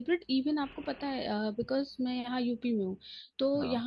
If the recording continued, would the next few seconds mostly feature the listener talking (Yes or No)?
No